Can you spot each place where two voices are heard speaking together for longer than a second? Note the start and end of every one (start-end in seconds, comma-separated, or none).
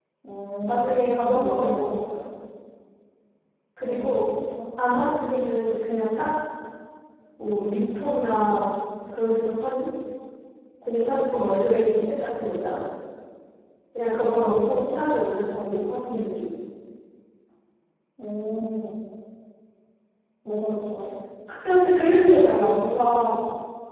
0.7-2.0